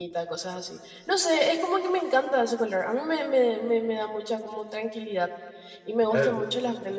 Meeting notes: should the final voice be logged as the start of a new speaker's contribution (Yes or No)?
No